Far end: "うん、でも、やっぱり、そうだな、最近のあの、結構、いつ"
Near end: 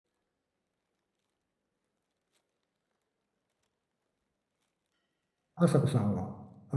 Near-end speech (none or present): present